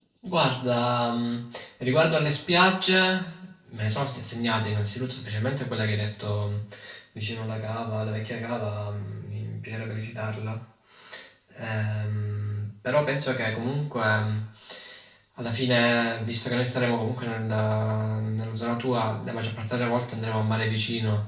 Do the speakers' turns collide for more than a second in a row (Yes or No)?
No